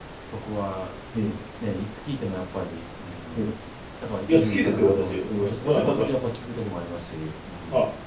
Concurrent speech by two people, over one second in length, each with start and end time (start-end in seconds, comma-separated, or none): 4.3-6.1